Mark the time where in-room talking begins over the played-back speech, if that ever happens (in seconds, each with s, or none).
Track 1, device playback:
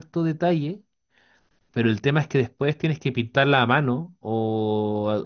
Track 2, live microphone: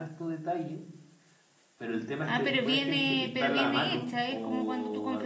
2.2 s